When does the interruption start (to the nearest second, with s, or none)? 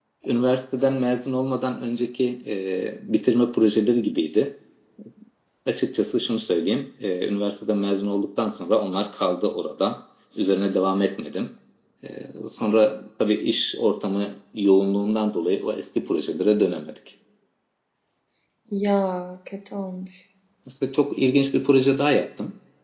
none